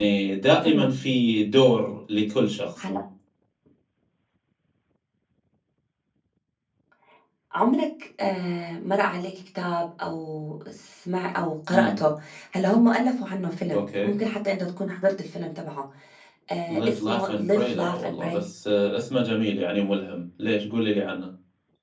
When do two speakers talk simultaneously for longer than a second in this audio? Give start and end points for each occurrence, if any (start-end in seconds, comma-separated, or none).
16.7-18.4